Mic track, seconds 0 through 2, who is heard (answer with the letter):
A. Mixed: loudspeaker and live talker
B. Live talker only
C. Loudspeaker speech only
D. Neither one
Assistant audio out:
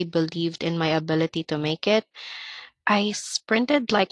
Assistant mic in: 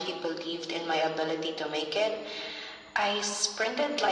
C